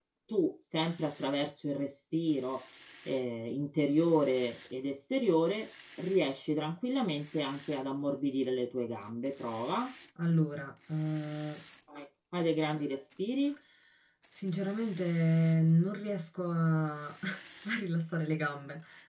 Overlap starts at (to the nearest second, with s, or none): none